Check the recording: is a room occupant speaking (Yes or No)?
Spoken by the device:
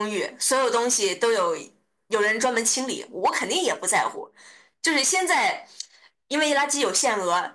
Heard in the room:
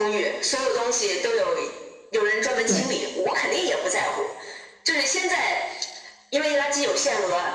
Yes